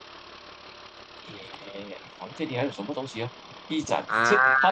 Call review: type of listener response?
listening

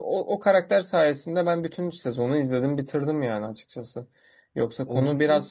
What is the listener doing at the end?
listening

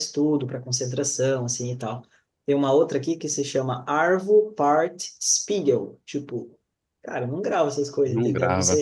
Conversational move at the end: listening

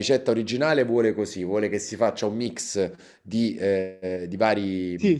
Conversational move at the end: listening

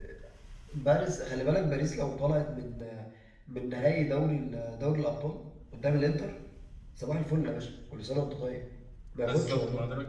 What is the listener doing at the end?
taking over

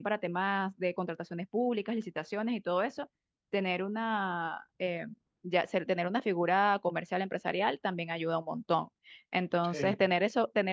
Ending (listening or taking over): listening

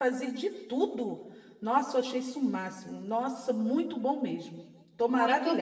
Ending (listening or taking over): taking over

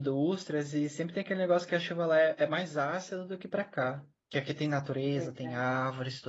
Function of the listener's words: listening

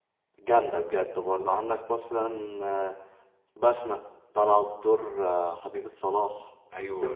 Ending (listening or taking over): taking over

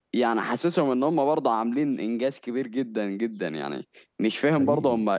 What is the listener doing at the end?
listening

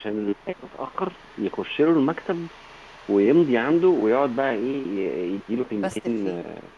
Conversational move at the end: listening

